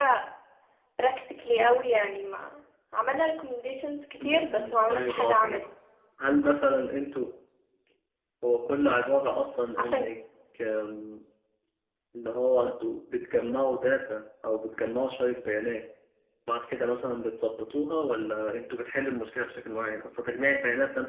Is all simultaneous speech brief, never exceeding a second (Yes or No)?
No